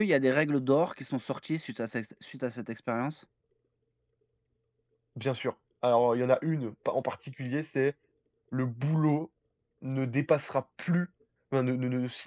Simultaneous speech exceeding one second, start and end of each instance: none

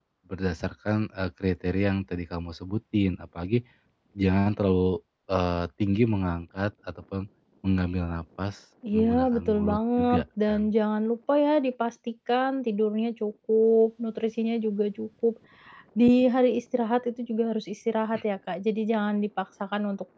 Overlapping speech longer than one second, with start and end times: 8.9-10.7

